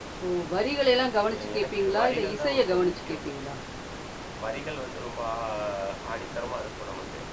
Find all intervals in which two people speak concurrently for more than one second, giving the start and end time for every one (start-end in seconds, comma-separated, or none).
1.4-3.2